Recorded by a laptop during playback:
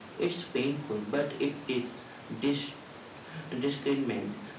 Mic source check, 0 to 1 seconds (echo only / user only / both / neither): echo only